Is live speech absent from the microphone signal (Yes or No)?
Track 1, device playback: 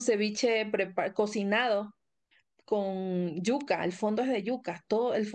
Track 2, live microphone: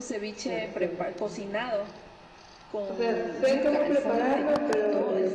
No